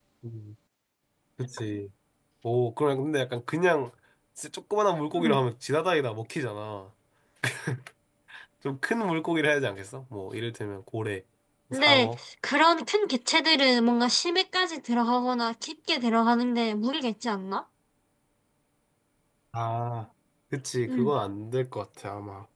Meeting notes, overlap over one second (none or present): none